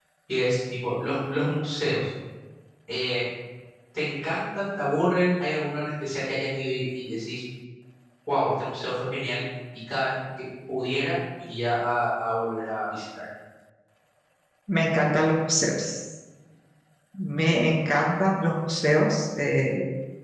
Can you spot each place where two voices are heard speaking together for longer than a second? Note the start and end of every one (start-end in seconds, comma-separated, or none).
none